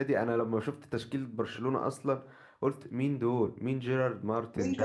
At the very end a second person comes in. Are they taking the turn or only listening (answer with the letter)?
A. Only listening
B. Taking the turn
B